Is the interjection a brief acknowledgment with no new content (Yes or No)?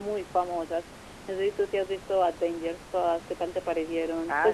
No